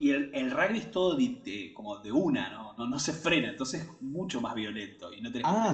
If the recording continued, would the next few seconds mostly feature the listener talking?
Yes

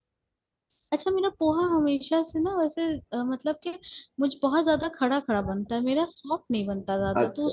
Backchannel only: No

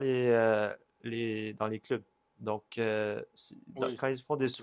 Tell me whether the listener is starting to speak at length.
No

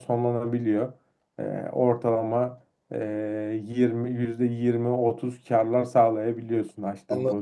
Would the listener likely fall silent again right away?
No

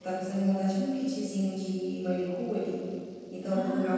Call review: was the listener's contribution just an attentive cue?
Yes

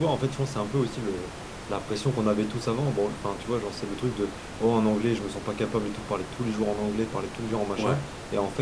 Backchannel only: Yes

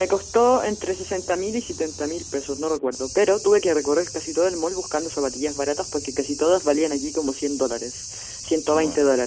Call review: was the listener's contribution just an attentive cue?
Yes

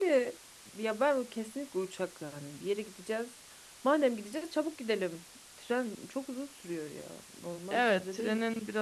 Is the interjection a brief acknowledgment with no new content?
No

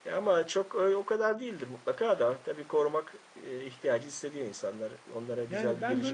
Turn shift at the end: Yes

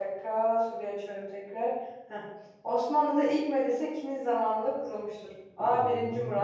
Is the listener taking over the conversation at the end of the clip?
No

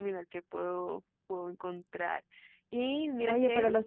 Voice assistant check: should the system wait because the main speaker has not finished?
No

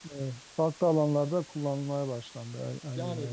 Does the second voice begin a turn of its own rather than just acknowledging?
Yes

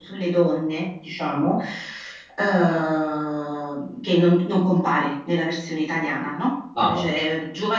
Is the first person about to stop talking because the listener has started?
No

